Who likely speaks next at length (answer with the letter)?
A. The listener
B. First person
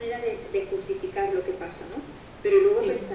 B